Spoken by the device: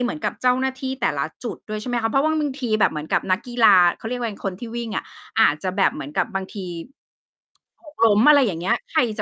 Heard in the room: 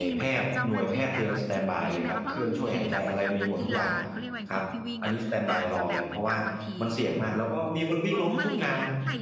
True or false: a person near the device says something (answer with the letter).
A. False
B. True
B